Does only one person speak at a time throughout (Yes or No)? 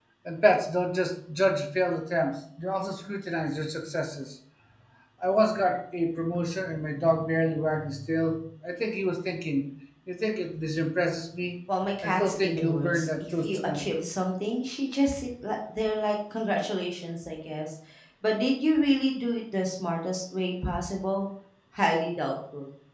No